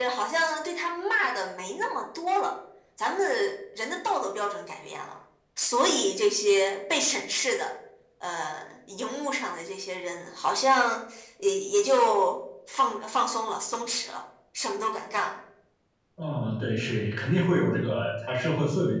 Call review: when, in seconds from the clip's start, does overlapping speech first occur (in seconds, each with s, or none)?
none